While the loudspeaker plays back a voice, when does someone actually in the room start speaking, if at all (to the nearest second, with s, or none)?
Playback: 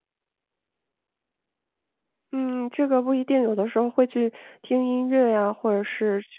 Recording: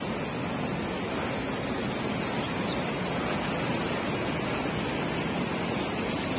none